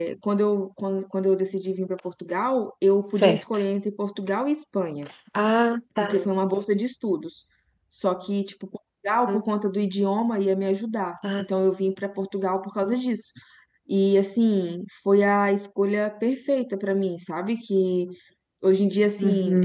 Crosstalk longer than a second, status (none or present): none